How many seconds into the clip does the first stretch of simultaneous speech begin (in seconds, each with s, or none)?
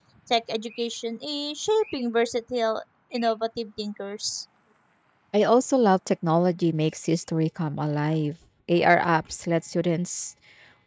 none